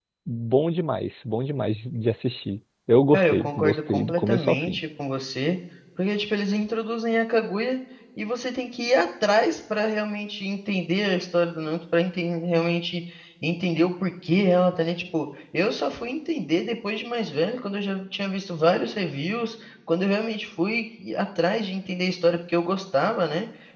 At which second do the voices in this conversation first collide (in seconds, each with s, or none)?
3.1 s